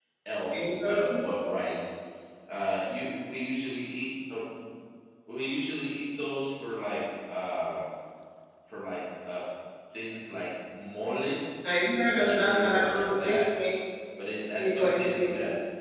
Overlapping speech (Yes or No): Yes